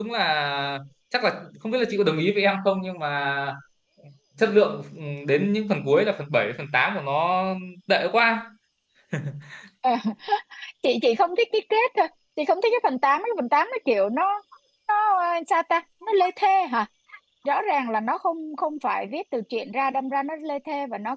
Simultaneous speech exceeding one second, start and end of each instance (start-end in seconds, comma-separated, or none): none